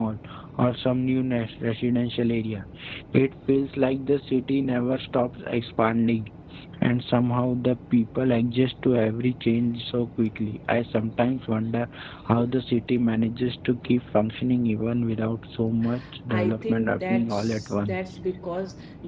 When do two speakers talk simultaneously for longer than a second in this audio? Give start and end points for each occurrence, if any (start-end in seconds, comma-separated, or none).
16.3-18.0